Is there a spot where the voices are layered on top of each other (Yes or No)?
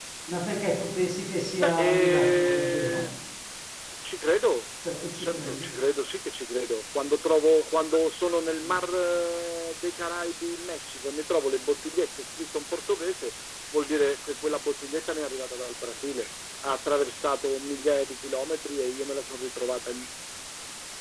Yes